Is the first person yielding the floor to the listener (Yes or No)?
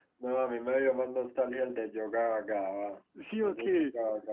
No